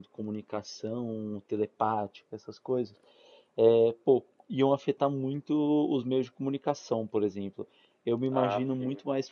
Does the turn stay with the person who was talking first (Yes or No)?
Yes